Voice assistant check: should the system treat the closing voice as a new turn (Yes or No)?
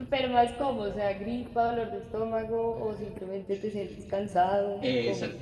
Yes